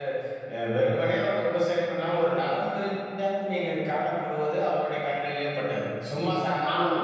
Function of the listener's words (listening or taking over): listening